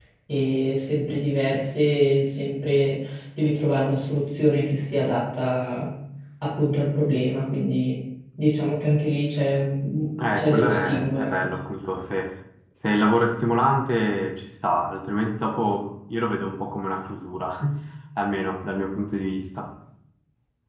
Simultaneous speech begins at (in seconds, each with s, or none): 10.2 s